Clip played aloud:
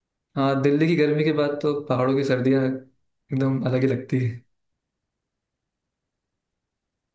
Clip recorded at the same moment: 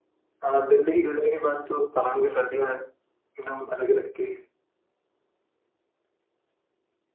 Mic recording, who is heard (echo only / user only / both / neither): echo only